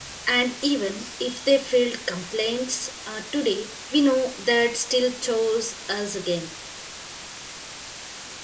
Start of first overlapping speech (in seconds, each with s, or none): none